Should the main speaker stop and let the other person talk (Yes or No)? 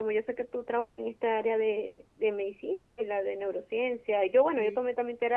No